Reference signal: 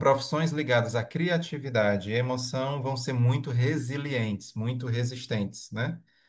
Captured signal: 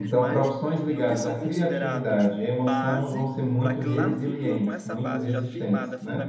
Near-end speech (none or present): present